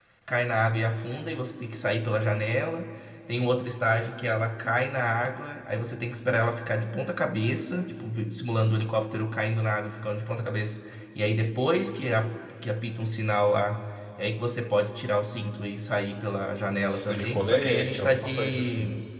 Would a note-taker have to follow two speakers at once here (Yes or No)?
Yes